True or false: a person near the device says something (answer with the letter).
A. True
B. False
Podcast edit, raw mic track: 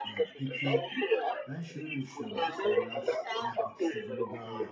A